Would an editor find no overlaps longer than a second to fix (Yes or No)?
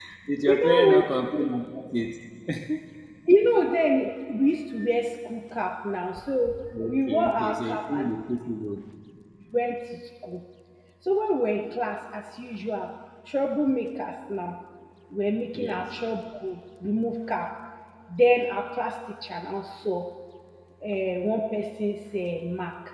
No